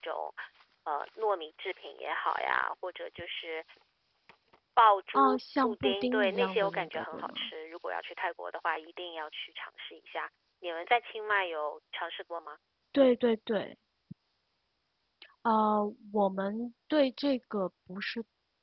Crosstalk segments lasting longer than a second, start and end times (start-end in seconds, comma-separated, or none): 5.2-7.5